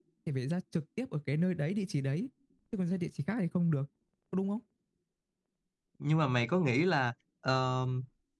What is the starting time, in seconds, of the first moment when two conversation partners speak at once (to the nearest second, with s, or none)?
none